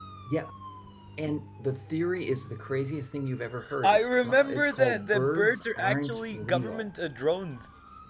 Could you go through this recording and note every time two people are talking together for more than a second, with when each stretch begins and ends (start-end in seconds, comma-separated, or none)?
3.8-6.9